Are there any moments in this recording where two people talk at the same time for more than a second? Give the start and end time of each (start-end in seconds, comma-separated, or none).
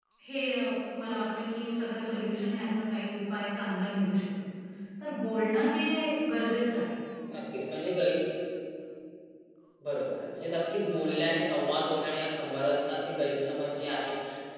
none